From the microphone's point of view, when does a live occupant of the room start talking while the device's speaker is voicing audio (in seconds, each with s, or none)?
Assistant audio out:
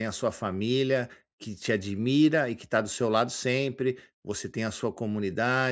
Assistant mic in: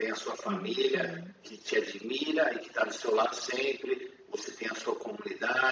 0.5 s